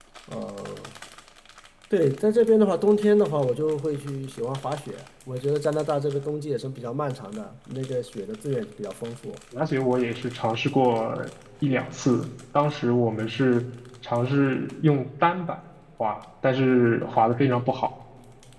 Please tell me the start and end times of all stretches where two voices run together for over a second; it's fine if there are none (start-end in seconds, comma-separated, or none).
none